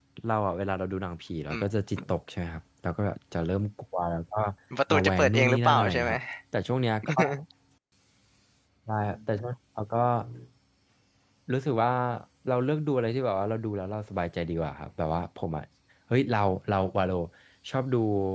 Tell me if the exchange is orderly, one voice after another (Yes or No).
No